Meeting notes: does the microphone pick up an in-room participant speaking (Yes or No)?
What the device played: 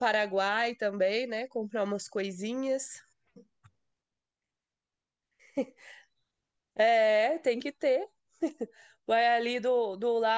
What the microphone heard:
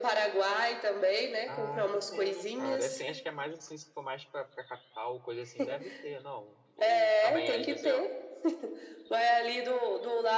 Yes